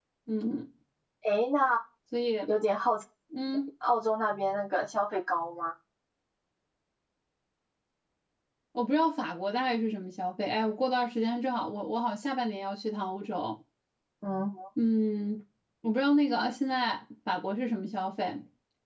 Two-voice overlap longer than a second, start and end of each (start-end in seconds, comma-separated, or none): none